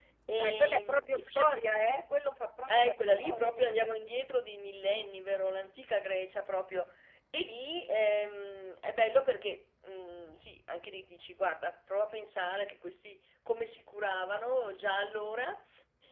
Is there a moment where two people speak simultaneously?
Yes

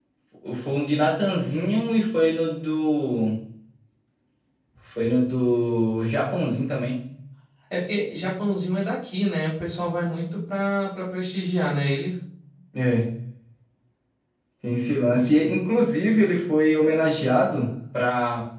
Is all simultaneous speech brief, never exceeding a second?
Yes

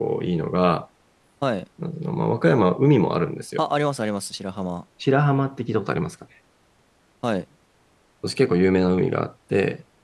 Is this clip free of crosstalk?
Yes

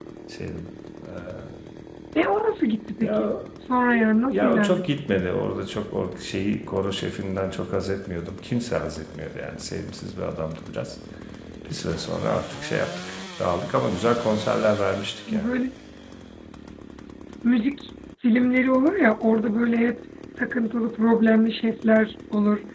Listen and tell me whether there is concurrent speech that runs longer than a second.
No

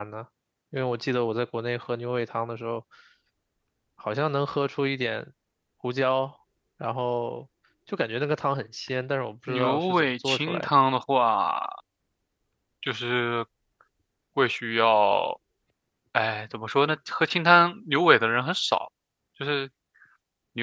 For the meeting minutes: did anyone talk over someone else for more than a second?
Yes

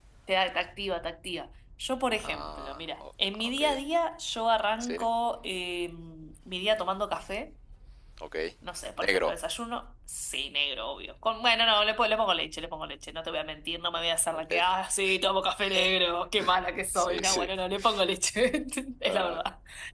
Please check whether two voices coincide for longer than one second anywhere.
Yes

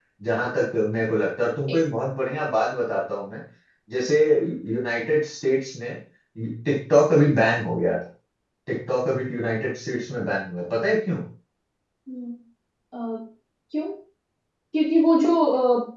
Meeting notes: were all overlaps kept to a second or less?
Yes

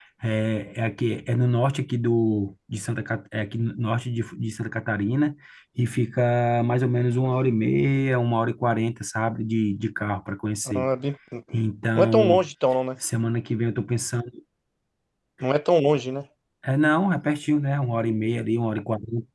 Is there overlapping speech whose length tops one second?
No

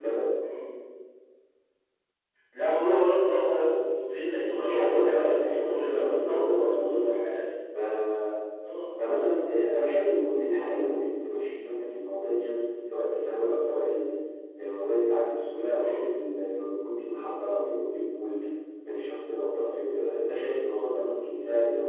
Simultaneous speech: Yes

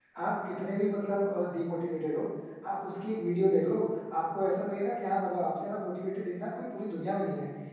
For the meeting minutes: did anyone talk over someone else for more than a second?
No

